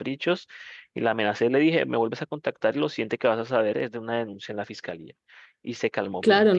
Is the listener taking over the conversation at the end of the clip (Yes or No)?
Yes